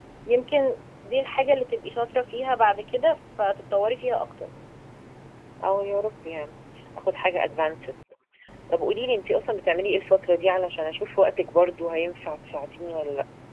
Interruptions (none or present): none